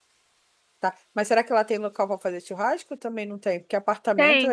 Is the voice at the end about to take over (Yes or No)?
Yes